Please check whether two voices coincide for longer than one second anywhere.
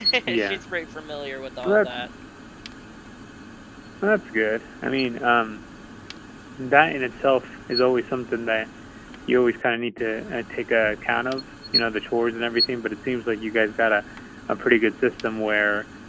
No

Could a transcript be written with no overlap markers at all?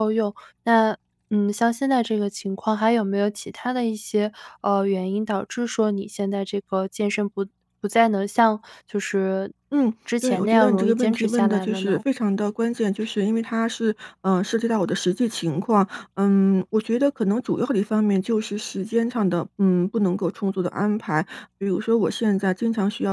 No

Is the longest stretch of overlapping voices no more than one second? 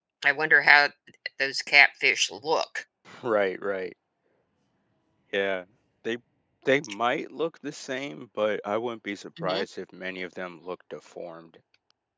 Yes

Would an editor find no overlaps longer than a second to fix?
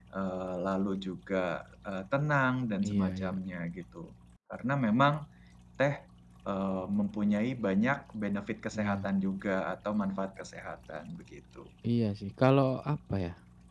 Yes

